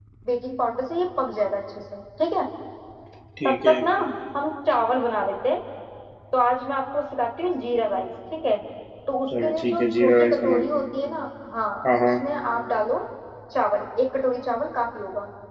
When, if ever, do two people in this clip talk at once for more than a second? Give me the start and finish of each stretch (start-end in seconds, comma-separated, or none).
9.4-10.7